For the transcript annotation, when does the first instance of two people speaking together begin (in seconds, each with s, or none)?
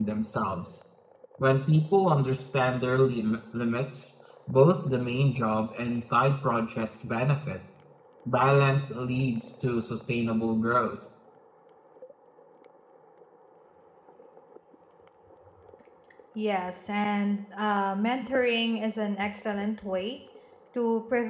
none